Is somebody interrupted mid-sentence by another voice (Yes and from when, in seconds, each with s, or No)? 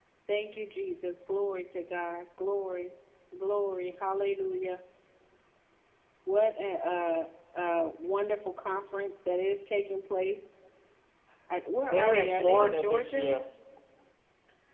Yes, from 11.9 s